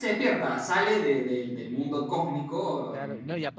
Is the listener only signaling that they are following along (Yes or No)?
No